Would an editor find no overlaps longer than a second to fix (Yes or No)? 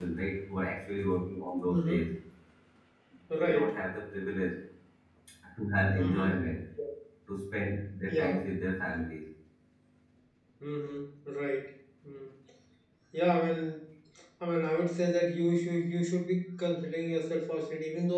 Yes